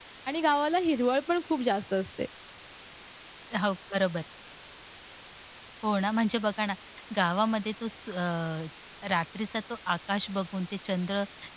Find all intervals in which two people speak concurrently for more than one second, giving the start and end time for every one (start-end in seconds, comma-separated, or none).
none